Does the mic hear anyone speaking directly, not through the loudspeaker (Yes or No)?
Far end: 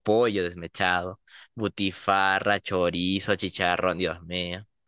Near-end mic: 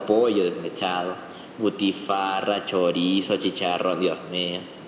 No